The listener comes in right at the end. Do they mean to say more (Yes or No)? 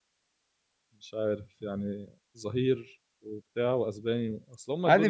Yes